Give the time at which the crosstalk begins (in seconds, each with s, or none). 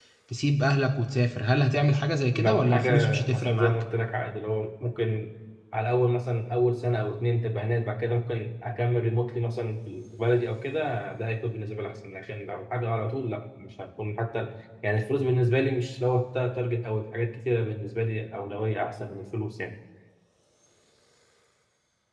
2.3 s